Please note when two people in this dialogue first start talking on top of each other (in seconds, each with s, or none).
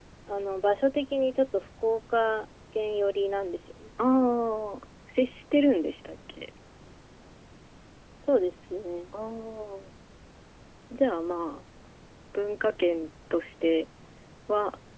none